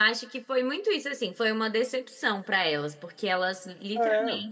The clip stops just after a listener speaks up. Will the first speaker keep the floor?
Yes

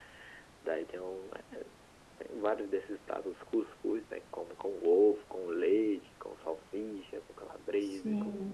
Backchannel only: No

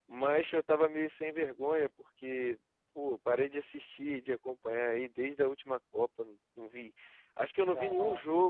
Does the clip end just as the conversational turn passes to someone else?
No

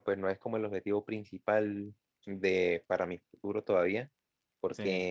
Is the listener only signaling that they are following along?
Yes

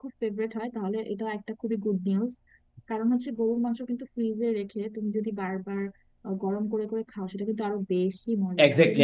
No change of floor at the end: No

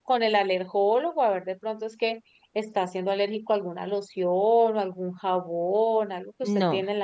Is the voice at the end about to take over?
Yes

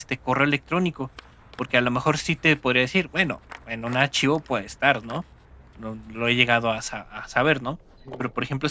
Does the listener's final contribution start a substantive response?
No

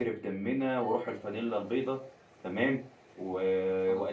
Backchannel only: Yes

